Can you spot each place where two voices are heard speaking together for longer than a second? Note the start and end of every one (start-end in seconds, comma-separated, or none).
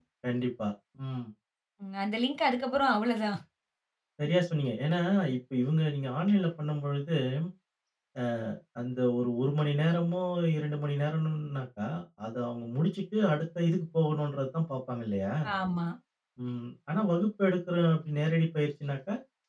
none